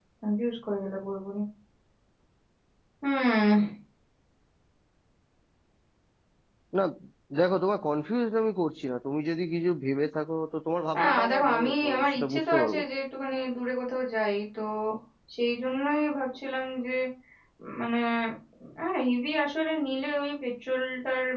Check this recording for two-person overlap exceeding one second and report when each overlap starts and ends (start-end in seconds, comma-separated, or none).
11.0-12.8